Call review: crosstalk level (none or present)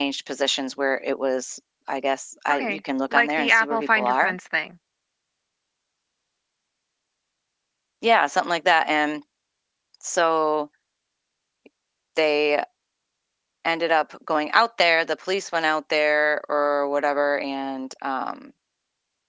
present